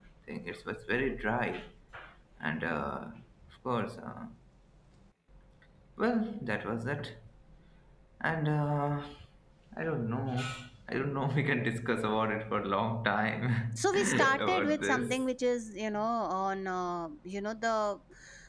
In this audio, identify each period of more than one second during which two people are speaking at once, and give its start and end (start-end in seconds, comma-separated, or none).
13.8-15.1